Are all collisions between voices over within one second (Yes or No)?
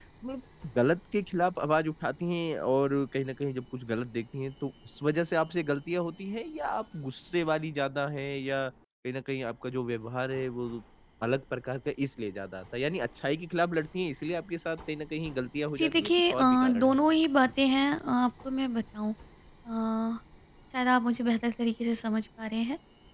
No